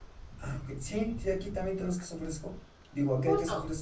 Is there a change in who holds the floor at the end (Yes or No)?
No